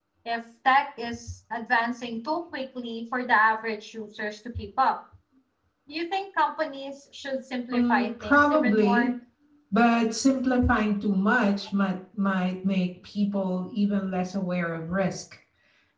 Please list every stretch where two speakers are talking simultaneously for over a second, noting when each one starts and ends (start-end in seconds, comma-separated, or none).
7.7-9.1